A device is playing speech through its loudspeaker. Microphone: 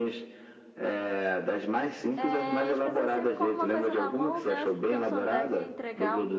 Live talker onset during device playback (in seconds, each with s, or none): 2.2 s